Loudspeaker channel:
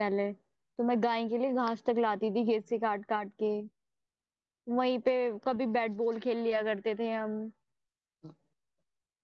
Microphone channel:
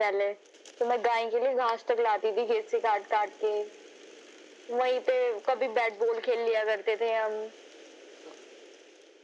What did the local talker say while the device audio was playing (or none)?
none